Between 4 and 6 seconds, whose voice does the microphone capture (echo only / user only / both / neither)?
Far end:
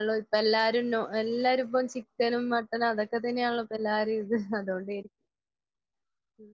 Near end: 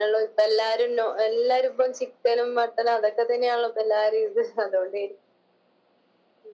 echo only